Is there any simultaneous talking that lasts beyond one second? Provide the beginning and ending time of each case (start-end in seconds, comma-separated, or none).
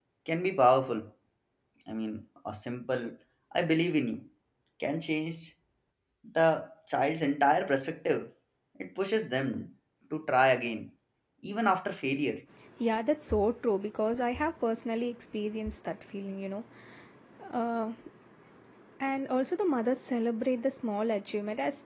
none